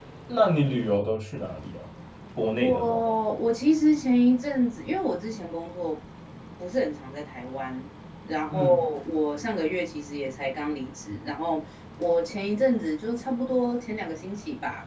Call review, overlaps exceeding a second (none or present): none